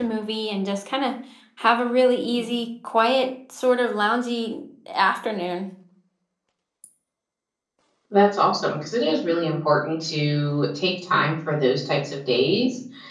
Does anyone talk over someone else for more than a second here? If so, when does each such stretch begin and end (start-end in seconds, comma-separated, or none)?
none